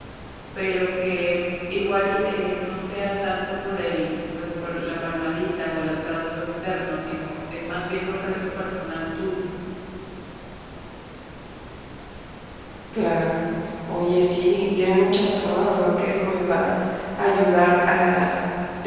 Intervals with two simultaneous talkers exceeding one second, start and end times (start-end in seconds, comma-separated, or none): none